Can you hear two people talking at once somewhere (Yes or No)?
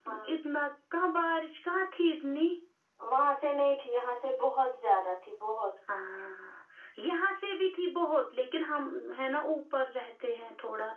No